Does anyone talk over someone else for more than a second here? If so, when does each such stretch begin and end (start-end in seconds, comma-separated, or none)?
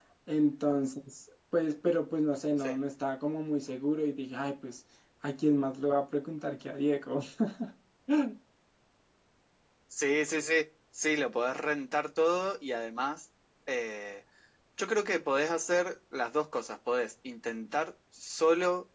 none